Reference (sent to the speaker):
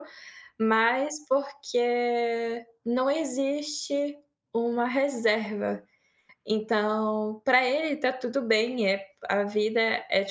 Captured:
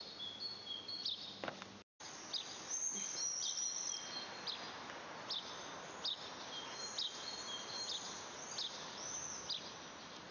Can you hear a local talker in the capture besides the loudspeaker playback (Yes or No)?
No